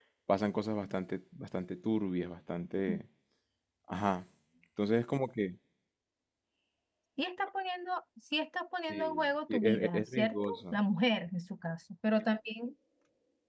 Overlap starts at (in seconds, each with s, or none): 8.9 s